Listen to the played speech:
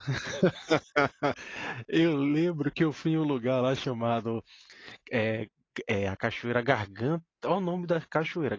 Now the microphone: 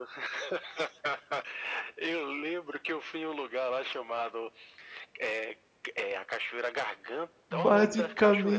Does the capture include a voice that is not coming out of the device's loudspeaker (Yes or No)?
Yes